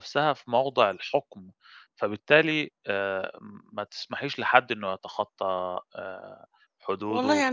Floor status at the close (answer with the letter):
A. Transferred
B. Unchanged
A